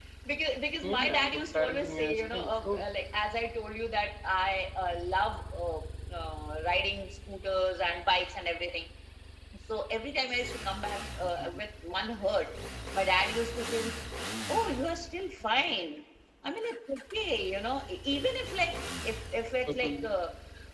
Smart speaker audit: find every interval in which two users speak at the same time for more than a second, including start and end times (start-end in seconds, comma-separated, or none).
0.8-2.8